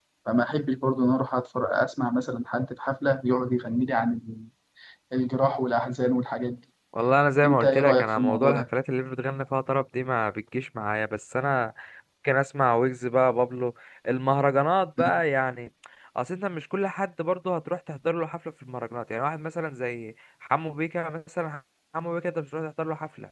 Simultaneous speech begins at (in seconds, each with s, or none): 7.4 s